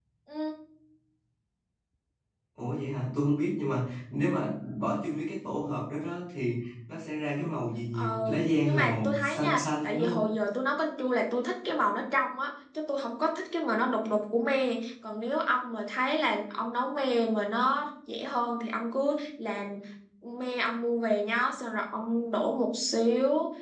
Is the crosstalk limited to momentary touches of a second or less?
No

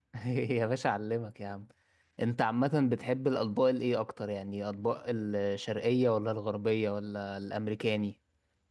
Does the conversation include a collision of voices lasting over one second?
No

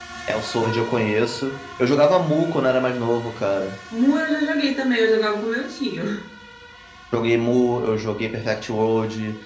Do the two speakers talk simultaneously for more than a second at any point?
No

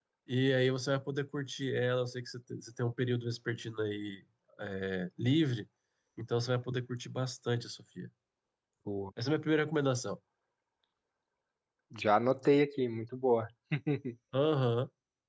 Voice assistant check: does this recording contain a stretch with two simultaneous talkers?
No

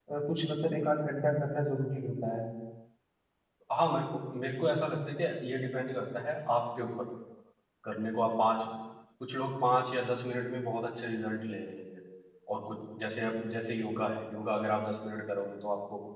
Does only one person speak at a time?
Yes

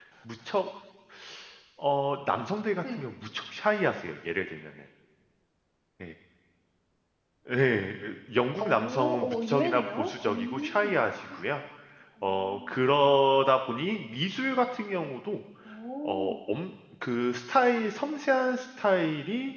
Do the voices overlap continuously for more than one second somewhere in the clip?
Yes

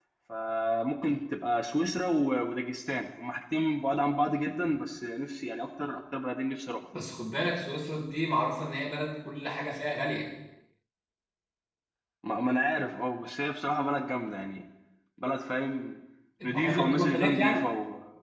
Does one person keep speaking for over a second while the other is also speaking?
Yes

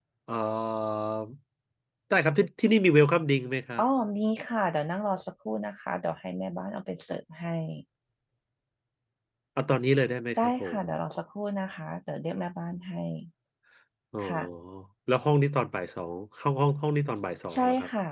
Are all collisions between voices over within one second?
Yes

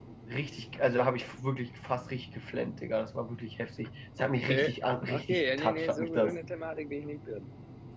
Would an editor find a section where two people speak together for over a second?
Yes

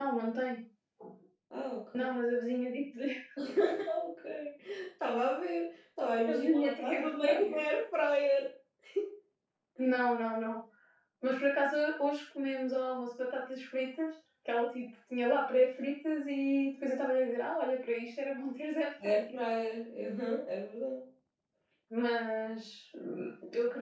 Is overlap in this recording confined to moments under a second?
No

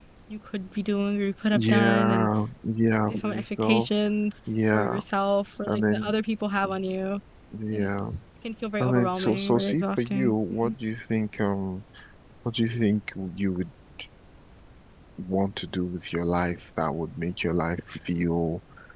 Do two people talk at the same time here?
Yes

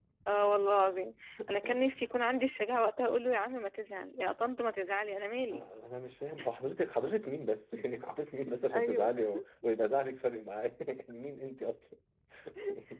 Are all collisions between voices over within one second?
Yes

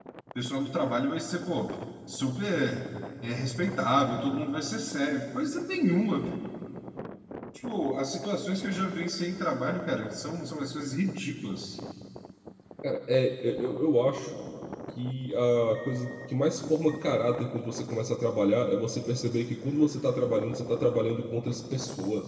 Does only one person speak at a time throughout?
Yes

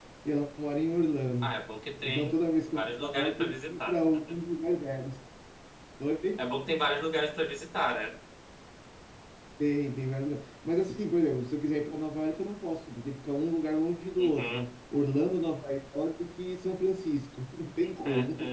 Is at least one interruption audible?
Yes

